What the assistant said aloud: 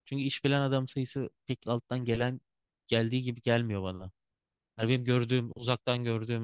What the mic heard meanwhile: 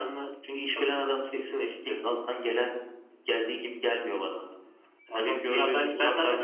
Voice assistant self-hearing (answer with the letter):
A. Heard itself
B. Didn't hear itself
A